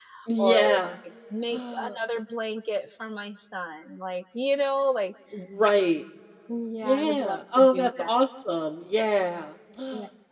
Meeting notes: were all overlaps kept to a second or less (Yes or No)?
No